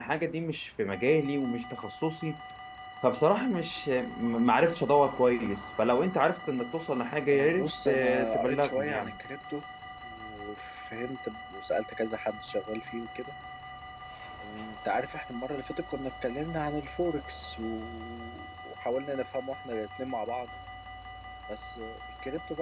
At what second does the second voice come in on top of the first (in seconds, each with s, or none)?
7.3 s